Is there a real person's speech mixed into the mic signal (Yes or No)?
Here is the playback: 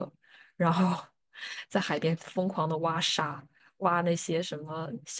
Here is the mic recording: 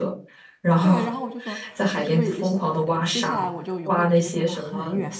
Yes